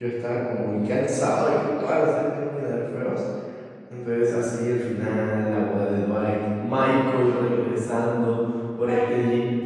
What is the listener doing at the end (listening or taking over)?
listening